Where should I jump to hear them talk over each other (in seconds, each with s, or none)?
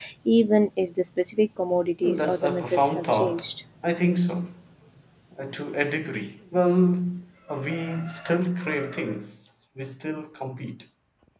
2.0 s